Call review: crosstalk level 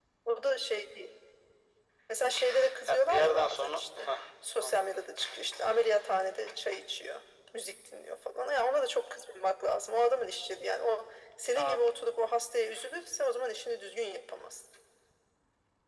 present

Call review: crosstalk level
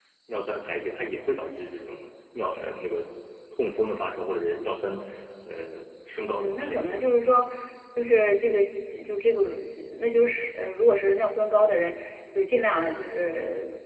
present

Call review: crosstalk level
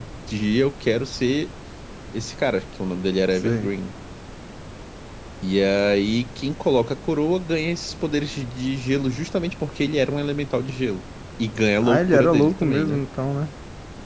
present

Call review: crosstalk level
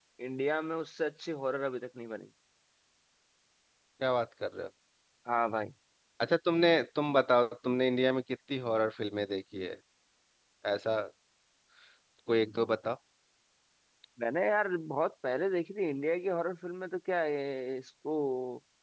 none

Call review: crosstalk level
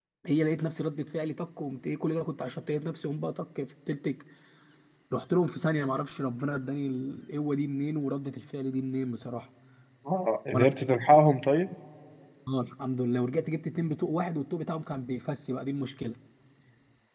none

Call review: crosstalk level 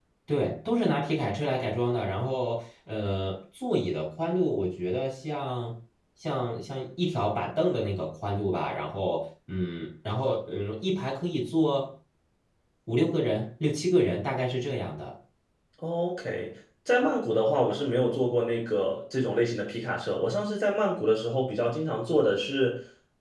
none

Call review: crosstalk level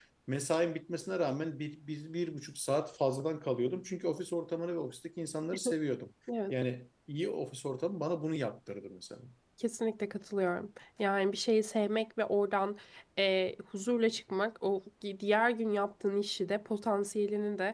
none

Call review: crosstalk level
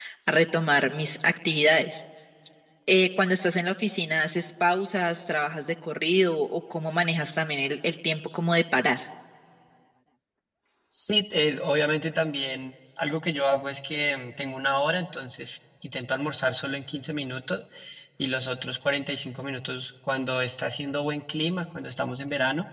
none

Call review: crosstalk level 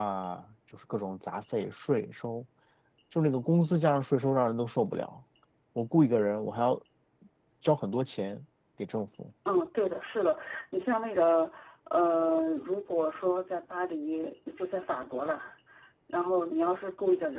none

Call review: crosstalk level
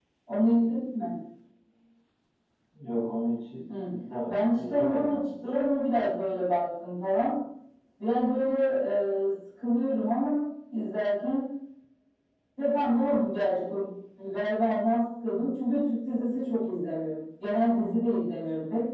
present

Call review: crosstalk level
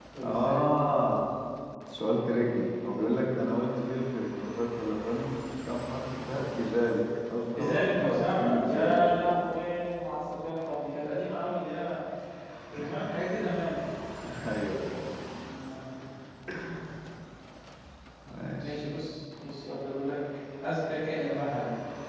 present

